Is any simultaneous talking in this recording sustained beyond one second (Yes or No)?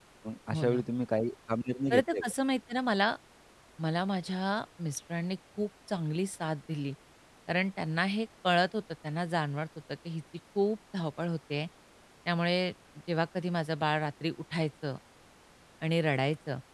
No